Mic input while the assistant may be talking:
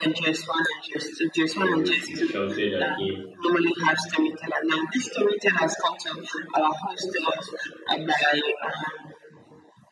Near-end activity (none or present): present